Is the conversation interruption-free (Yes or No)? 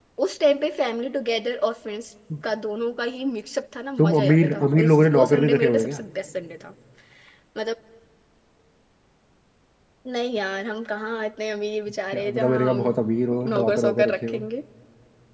No